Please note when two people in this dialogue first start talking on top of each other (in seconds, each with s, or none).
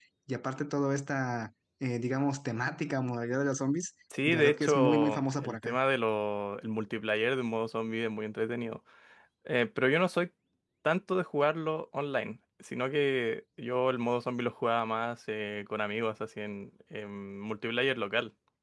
4.1 s